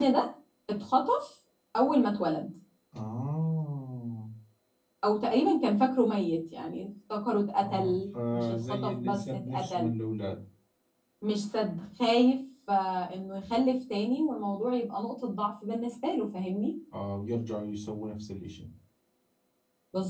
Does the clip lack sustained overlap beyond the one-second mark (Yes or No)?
No